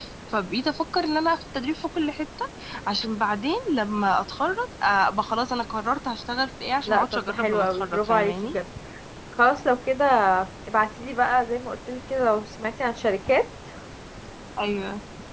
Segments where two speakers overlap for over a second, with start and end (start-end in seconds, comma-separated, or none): 6.9-8.6